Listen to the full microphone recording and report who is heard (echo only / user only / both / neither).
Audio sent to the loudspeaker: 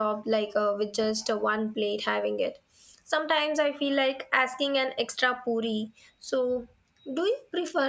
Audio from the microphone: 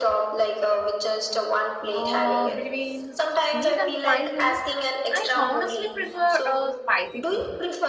both